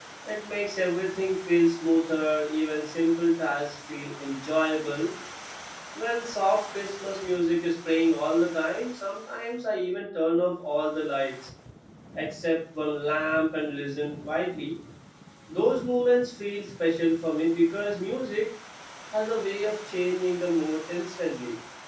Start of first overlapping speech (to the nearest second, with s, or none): none